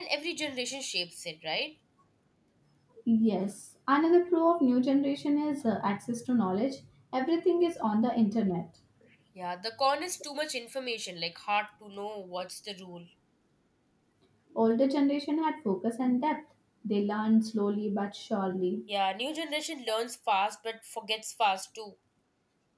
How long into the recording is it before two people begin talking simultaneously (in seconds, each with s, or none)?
none